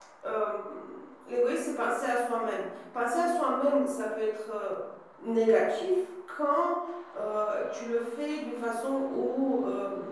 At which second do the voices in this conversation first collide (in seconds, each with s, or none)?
none